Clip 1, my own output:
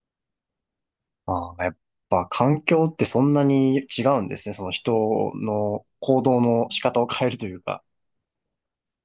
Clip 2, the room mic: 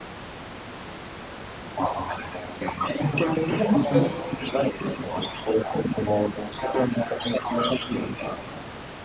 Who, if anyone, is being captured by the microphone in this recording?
both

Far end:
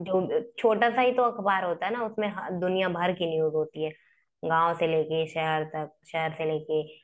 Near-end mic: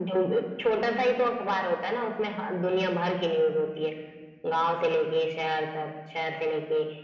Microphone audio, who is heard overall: echo only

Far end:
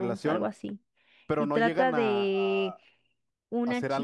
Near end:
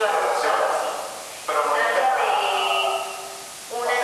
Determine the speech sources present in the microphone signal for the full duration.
echo only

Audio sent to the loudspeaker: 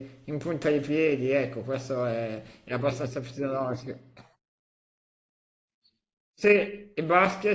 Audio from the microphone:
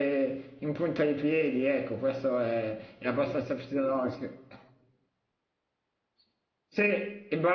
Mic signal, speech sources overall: echo only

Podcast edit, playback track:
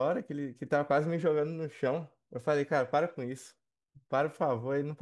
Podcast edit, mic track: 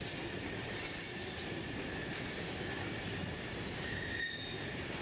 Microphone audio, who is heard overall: neither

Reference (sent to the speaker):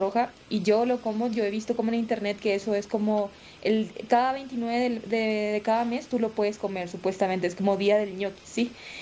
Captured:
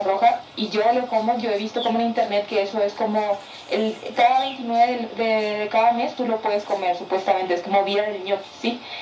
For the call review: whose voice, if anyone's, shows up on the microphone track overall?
echo only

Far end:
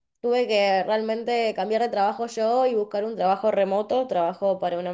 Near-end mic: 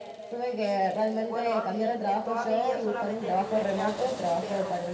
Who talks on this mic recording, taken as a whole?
both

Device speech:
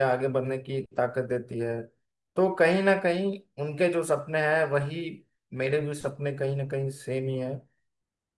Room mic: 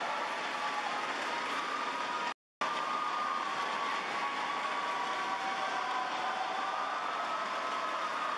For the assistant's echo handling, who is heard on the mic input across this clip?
neither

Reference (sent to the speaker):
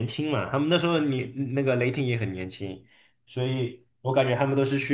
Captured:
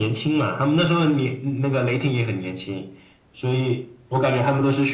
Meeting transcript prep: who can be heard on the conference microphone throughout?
echo only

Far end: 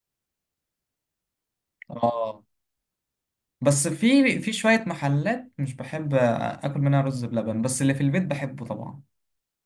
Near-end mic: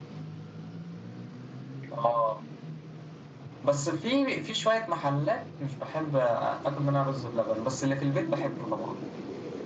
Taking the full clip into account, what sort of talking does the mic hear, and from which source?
echo only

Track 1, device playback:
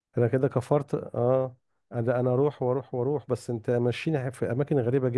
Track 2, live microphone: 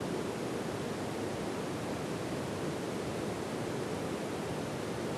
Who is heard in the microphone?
neither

